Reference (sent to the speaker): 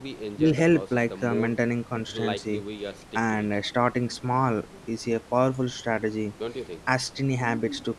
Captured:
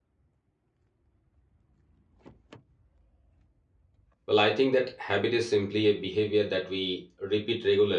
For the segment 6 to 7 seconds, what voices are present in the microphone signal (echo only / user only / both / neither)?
user only